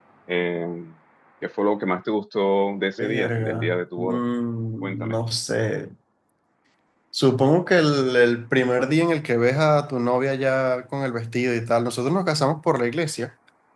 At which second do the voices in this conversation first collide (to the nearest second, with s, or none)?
3 s